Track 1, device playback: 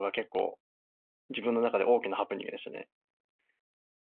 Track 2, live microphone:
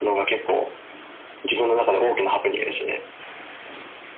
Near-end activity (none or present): none